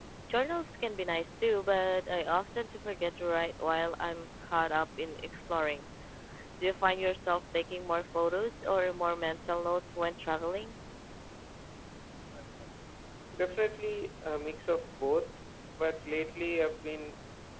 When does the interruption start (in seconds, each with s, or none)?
none